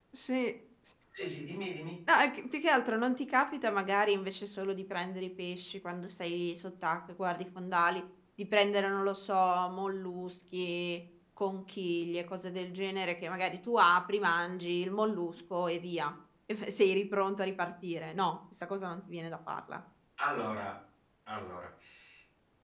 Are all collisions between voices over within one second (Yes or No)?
Yes